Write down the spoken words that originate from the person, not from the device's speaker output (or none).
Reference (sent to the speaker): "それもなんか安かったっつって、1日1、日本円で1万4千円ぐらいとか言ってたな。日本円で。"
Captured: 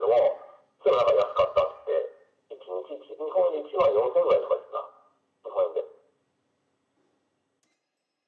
none